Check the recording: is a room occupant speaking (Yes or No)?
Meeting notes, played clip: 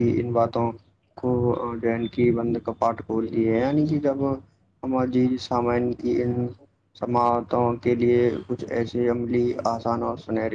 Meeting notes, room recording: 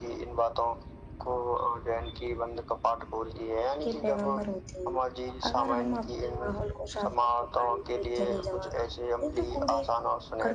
Yes